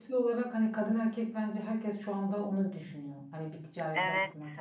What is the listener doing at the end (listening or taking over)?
taking over